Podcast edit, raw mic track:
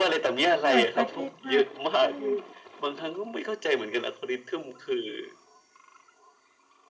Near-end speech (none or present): present